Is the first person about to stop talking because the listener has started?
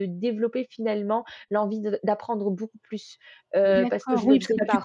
Yes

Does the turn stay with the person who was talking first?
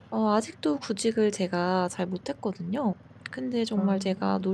Yes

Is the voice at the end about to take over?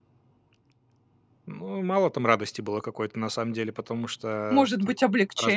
Yes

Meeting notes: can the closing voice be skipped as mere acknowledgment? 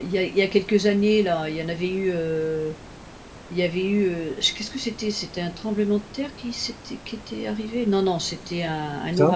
Yes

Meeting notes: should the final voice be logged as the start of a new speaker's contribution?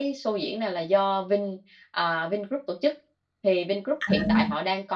No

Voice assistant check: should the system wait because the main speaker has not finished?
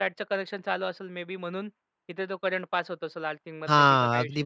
No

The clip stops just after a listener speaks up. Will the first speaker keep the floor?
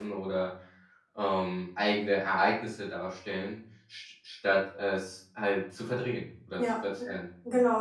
No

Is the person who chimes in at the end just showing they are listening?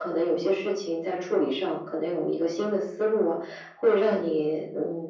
Yes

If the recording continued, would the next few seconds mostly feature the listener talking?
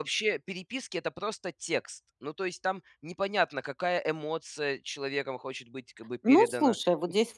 Yes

